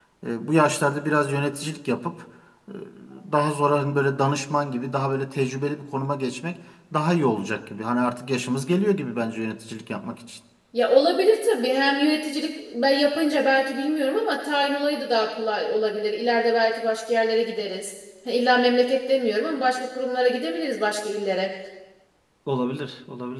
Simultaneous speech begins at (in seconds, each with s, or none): none